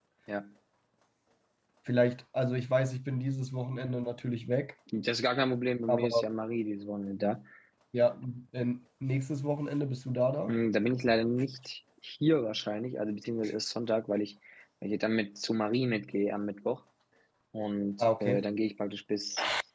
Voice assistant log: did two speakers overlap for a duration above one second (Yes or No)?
No